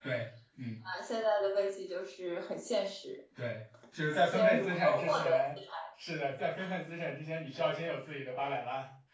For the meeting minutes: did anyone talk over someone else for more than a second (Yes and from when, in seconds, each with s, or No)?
Yes, from 4.1 s